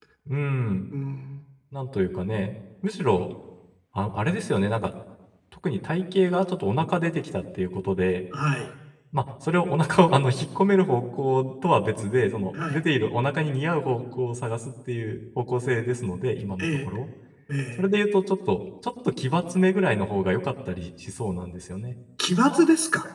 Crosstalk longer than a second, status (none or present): none